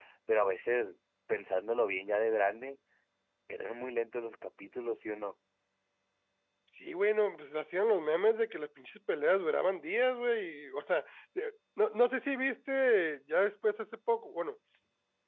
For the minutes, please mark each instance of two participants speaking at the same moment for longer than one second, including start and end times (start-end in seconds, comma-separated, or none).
none